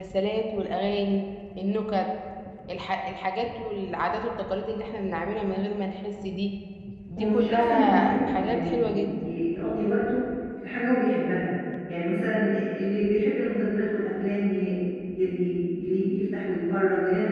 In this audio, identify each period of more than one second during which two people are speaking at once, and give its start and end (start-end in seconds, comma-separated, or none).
7.2-9.2